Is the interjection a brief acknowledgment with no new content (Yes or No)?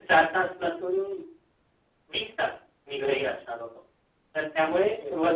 Yes